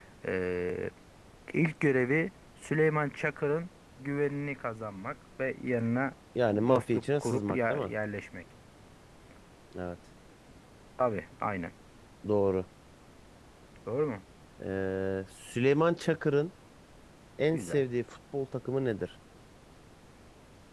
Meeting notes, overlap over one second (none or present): present